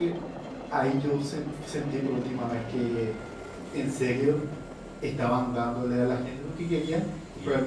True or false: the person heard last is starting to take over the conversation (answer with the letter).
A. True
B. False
B